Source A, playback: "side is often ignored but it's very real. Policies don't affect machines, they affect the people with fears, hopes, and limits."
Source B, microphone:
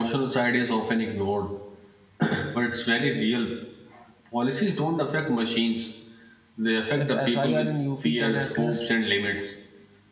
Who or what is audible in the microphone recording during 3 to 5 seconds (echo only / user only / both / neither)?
echo only